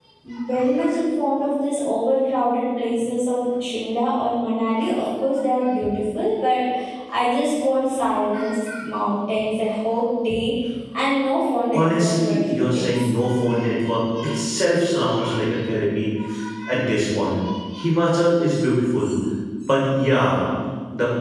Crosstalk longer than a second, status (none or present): present